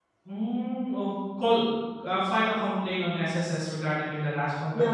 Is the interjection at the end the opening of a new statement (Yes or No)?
Yes